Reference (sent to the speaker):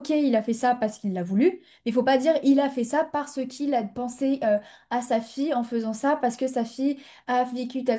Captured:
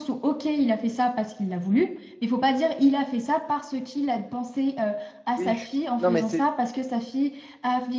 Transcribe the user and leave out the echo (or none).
Oui, je suis- non, mais c'est